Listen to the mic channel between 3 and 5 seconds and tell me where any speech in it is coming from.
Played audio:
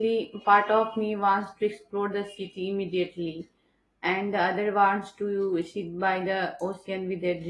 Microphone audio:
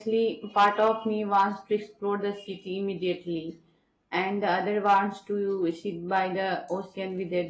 echo only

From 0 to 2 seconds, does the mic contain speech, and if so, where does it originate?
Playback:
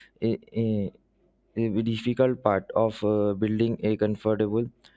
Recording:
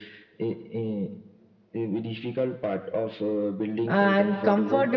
echo only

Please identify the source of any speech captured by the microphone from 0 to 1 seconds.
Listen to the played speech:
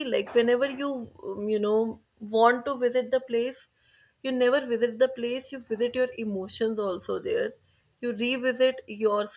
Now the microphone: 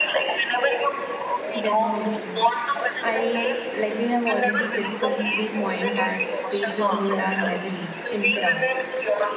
echo only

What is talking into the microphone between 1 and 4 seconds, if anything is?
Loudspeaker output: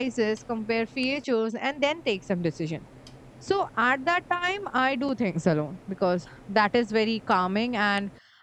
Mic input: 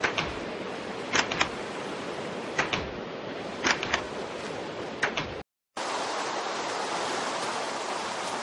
neither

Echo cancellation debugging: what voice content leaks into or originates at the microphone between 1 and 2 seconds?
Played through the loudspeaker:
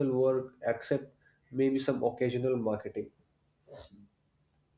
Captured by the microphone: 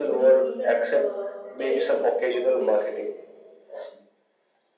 both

